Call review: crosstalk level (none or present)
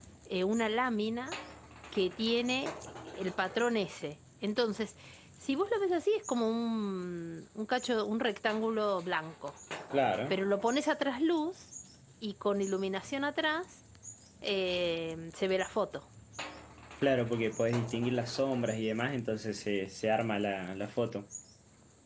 none